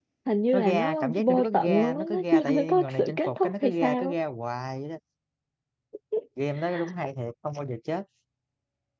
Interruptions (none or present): present